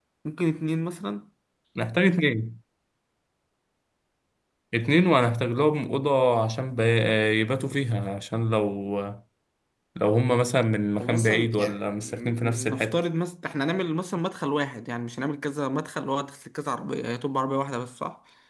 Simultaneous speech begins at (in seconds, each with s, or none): 11.0 s